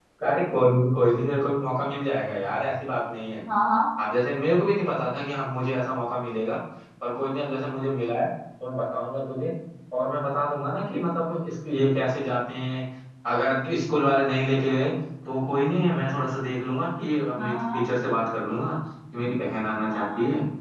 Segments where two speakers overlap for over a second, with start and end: none

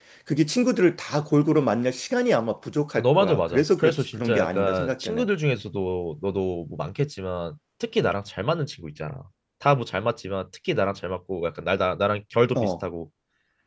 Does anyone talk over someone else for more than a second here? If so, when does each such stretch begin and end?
3.0-5.3

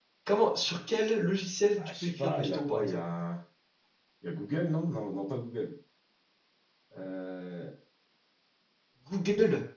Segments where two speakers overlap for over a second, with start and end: 1.8-3.0

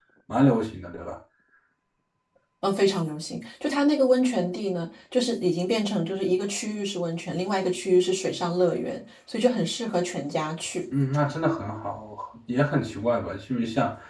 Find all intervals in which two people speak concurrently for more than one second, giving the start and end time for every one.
none

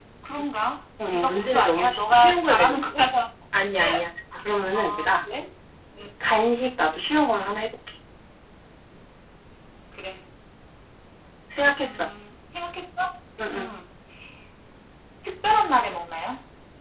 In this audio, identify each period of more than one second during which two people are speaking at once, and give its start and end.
1.0-2.8

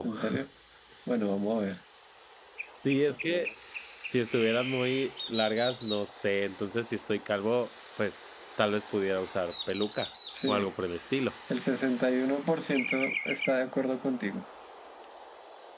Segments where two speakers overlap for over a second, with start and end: none

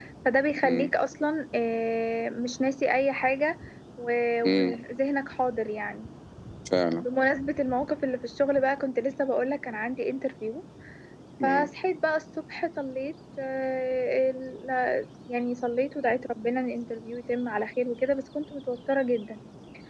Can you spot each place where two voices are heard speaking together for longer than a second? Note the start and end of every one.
none

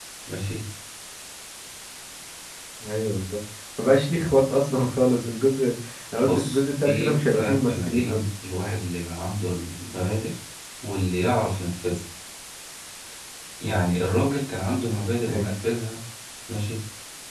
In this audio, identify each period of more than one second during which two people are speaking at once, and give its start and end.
6.2-8.2

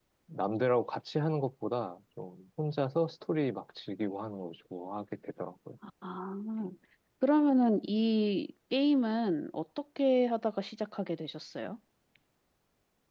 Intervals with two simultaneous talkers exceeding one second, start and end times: none

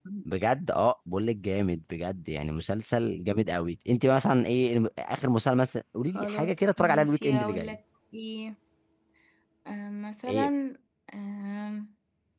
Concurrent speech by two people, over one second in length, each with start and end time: 6.1-7.8

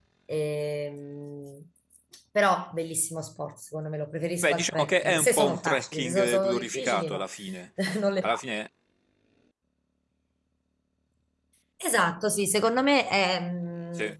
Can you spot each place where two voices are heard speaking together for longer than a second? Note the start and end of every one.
4.4-7.2

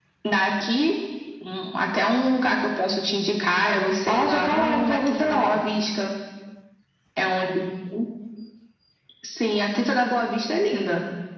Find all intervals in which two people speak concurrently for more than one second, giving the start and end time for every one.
4.1-5.6

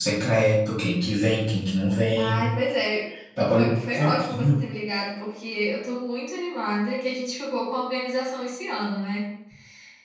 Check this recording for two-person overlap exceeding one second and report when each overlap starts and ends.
3.4-4.6

